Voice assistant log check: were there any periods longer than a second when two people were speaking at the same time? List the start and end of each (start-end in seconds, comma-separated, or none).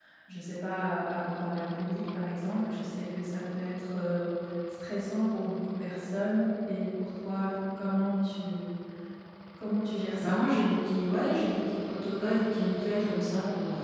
none